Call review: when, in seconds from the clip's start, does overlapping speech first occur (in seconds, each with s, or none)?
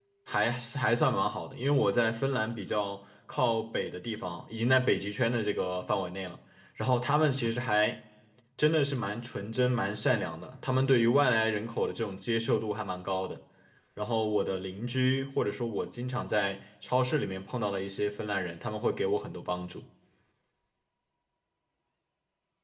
none